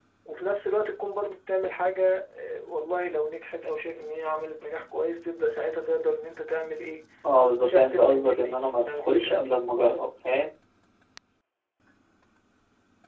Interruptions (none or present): present